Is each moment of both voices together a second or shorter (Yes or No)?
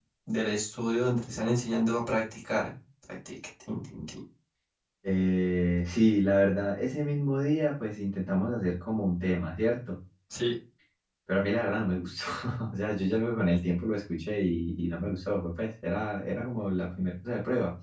Yes